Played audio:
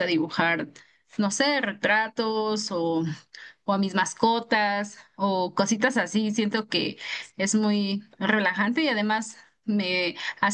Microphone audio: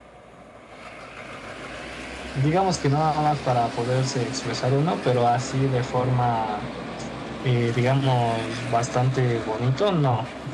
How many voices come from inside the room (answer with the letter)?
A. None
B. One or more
B